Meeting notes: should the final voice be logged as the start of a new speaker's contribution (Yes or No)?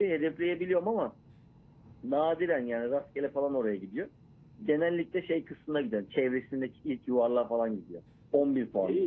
Yes